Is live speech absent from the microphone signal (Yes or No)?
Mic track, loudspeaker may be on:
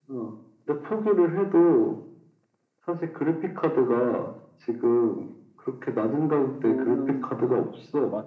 No